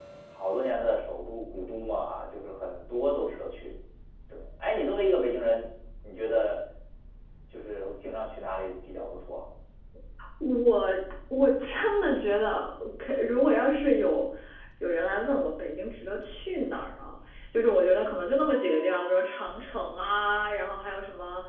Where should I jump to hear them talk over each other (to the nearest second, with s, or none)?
none